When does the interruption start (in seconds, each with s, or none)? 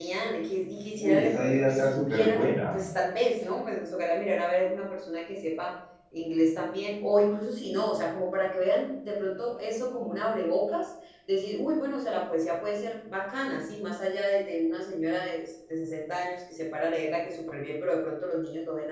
1.0 s